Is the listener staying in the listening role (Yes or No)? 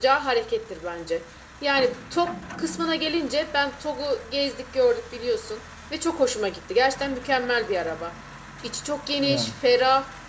Yes